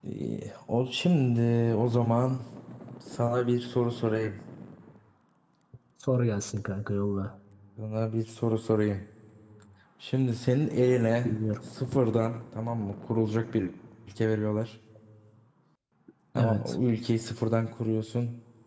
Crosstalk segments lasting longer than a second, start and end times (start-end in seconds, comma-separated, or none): none